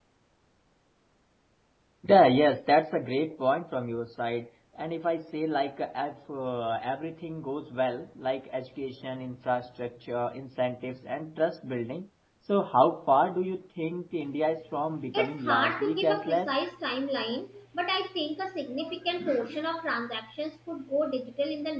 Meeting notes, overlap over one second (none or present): present